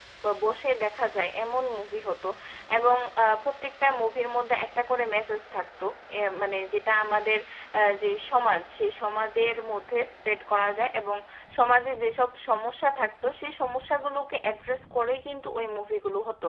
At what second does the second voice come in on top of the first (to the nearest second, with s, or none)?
none